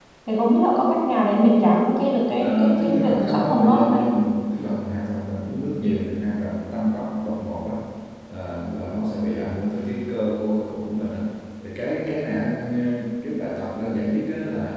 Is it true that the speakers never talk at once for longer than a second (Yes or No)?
No